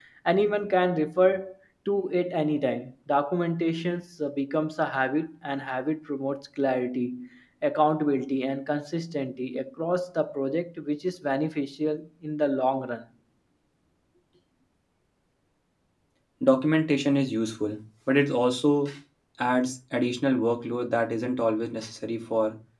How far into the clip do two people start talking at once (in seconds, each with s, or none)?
none